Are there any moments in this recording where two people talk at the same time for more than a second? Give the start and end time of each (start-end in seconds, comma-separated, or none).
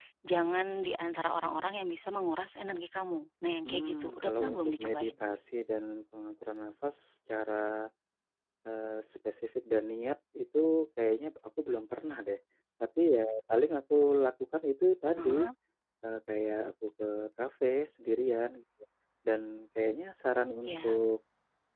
3.7-5.1